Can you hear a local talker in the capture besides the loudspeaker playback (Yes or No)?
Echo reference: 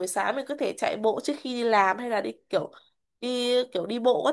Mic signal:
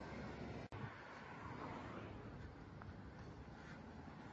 No